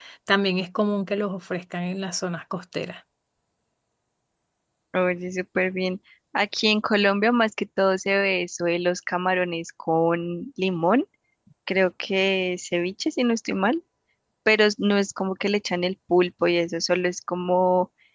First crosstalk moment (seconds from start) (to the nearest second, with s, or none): none